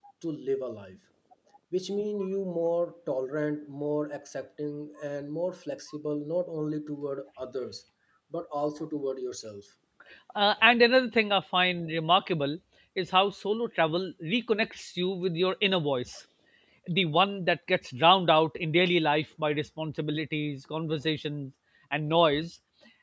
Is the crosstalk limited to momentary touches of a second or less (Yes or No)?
Yes